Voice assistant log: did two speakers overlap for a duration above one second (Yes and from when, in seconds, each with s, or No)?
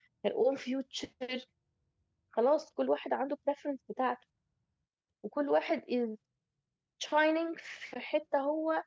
No